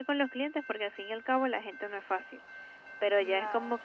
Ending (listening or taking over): listening